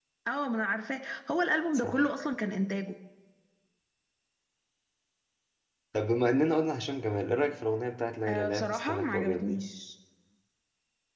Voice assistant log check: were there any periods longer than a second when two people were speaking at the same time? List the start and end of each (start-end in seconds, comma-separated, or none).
8.3-9.6